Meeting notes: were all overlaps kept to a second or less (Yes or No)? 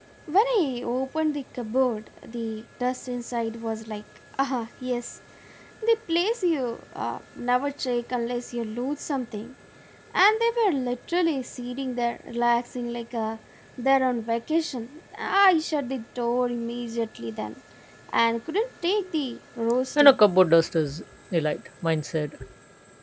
Yes